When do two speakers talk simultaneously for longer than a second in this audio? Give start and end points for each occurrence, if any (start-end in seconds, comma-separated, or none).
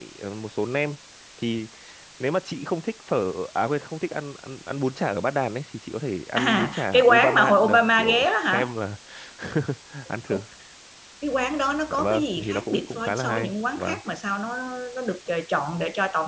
6.4-8.7, 11.9-14.0